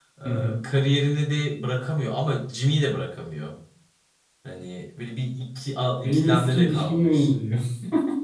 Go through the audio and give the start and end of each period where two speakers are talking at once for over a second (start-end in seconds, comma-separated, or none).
6.0-7.3